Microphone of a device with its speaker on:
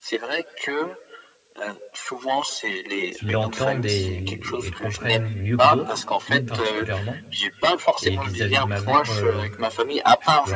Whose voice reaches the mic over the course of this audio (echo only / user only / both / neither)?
both